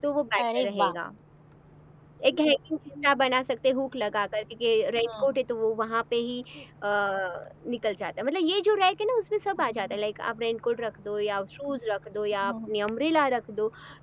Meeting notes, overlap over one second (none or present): none